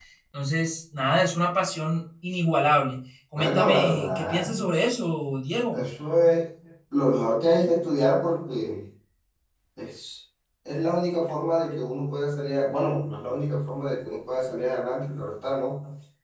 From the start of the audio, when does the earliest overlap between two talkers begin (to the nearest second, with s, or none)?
3 s